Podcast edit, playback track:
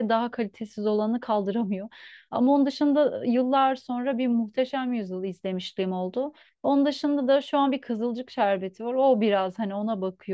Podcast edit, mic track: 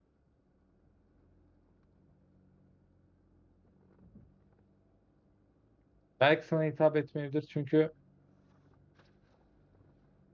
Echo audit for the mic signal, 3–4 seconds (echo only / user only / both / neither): neither